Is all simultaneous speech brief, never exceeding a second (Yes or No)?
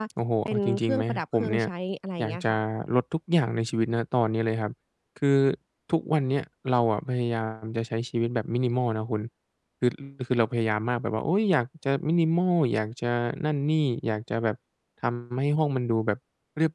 No